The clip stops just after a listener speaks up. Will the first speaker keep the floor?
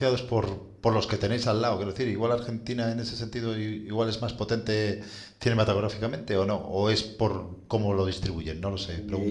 No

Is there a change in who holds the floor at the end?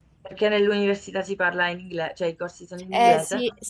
Yes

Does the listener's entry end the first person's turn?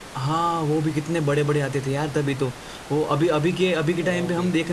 No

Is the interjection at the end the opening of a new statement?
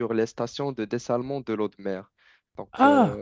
Yes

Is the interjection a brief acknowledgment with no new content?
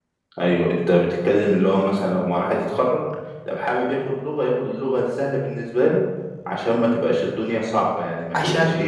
No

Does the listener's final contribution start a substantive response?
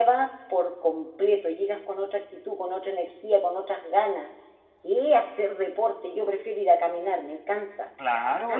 Yes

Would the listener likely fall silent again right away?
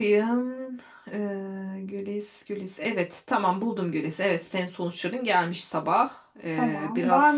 No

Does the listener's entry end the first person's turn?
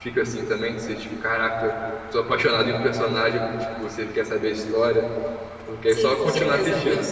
Yes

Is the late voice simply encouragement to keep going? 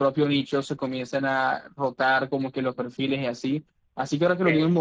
Yes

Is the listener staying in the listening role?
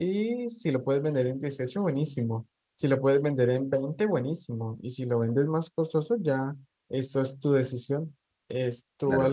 No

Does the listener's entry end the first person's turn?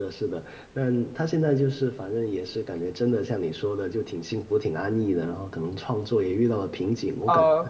Yes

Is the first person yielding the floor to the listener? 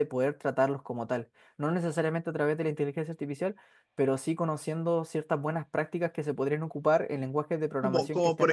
Yes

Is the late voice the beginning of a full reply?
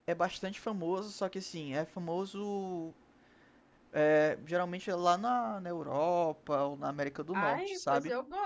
Yes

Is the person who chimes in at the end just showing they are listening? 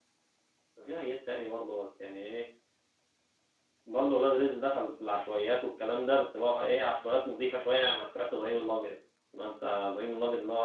Yes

